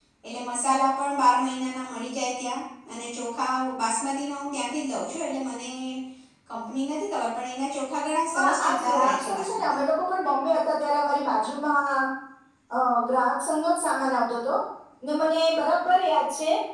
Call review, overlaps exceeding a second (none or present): present